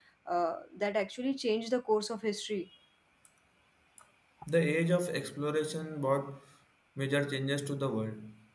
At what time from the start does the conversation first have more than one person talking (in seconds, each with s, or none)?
none